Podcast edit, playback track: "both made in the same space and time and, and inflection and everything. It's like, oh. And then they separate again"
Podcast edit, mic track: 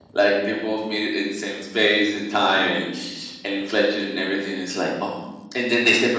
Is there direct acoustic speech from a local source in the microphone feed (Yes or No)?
No